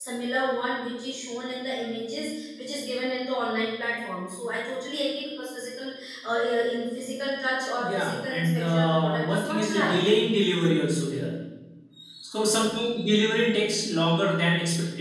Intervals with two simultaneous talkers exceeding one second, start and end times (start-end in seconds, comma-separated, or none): 7.8-9.9